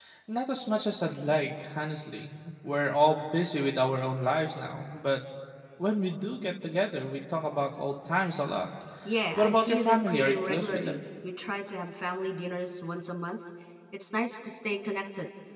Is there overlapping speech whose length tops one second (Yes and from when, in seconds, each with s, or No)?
Yes, from 9.4 s